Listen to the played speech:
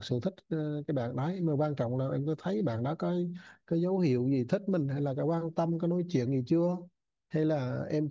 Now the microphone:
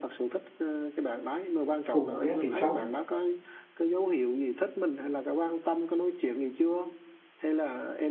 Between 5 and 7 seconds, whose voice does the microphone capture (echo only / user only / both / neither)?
echo only